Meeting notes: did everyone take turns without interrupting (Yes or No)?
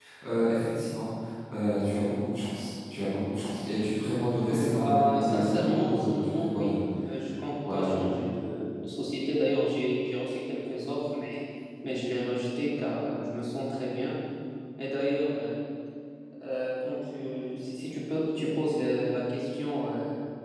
No